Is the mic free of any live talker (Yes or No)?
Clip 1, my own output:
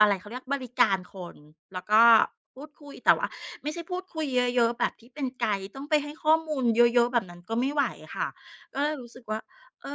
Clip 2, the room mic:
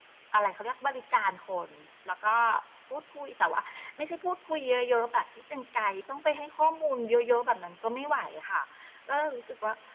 Yes